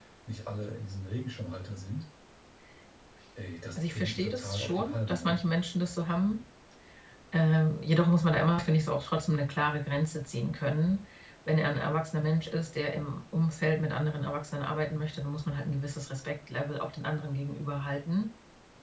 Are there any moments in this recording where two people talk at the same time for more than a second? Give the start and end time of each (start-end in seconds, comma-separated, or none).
3.8-5.4